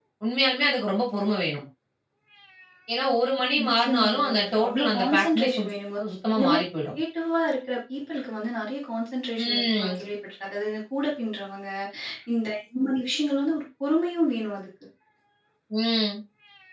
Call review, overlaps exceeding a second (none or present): present